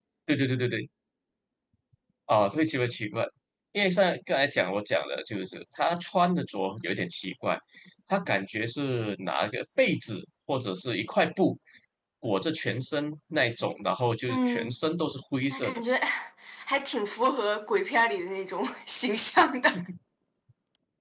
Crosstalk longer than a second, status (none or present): none